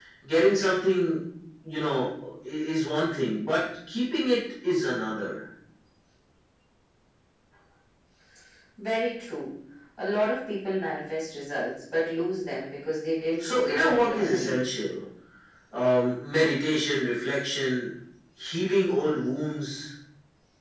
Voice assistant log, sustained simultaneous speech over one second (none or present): present